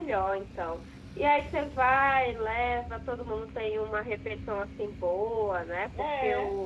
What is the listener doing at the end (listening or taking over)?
listening